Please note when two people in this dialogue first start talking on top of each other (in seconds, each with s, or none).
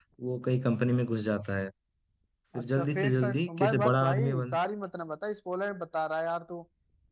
2.5 s